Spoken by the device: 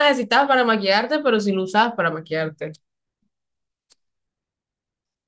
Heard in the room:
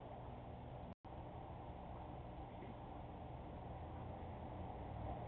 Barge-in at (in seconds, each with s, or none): none